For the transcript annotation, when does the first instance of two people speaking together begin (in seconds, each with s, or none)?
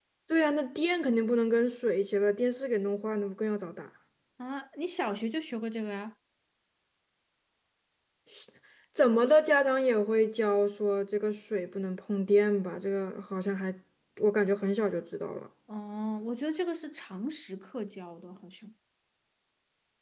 none